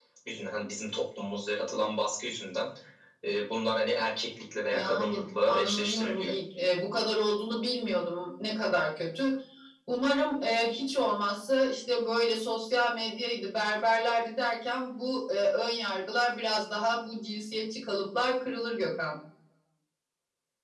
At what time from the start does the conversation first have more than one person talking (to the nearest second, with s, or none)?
5 s